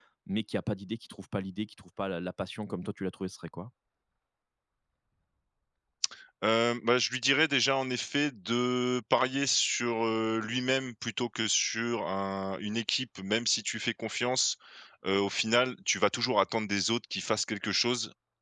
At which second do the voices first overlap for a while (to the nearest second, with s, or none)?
none